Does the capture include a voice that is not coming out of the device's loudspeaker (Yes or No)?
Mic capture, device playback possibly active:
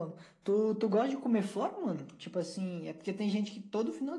No